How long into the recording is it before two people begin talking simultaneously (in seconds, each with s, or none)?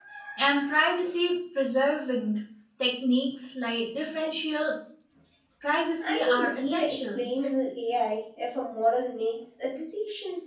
6.0 s